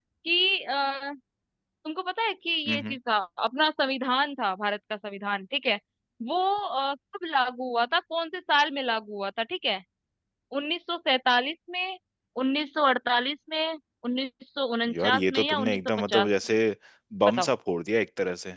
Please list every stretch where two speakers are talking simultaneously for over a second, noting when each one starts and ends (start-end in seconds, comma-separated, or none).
14.9-16.3